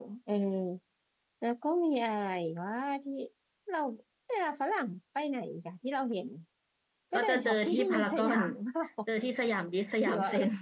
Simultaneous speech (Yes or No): Yes